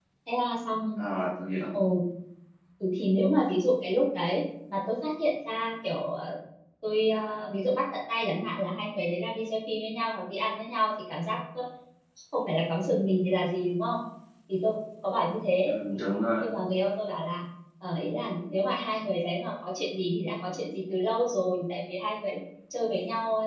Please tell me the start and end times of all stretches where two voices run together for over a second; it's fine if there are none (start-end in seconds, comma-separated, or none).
none